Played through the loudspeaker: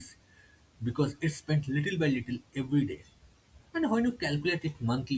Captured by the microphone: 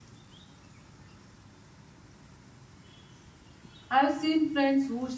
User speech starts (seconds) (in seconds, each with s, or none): 3.9 s